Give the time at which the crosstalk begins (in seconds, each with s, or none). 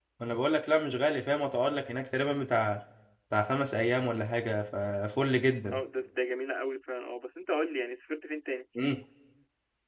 none